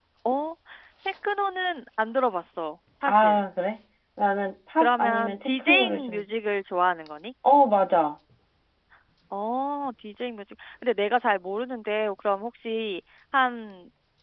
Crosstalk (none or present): present